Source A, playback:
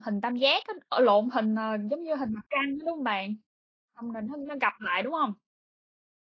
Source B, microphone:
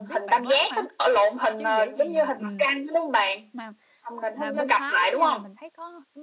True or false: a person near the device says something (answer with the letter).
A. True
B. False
A